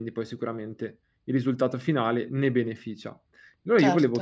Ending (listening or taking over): listening